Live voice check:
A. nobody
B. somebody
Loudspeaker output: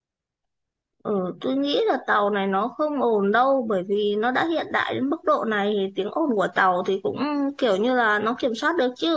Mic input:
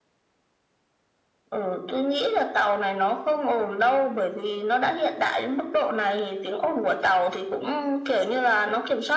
A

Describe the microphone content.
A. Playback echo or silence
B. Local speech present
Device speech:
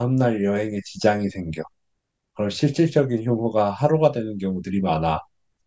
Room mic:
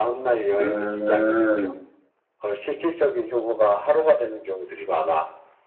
B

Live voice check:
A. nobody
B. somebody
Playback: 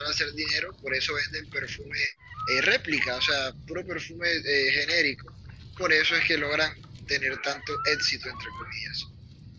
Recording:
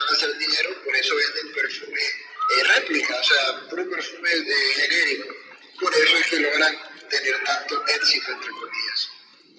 A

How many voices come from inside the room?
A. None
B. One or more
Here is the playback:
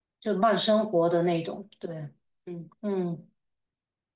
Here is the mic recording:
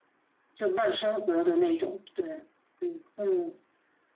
A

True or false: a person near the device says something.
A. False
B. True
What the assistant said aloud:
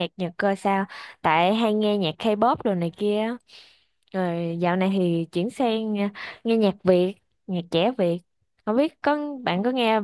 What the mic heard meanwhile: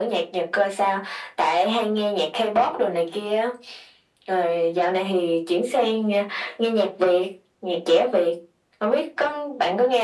A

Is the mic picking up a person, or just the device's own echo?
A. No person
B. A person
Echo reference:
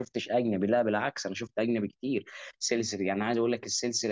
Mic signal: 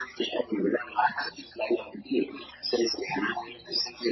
A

